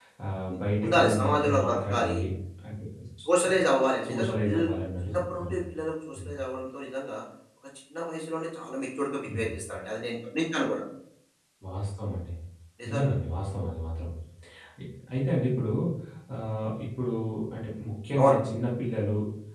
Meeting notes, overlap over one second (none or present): present